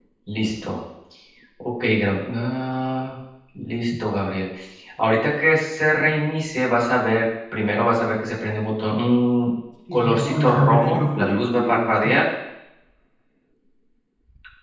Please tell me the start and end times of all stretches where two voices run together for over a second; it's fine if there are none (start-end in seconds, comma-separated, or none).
9.9-12.2